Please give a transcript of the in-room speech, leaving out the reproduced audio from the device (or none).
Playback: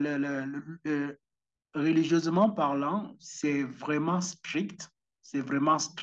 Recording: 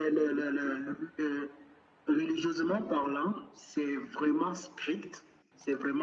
none